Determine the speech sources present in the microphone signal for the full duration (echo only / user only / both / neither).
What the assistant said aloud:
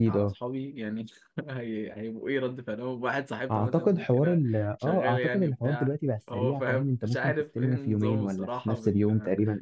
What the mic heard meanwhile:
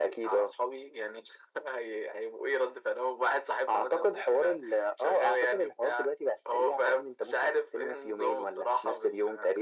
echo only